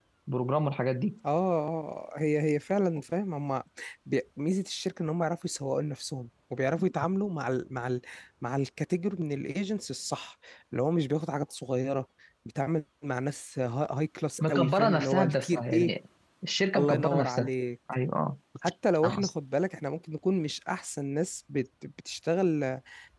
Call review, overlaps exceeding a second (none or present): present